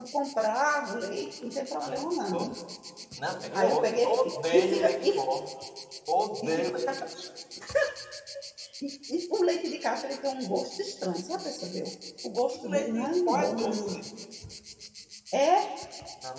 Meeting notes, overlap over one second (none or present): present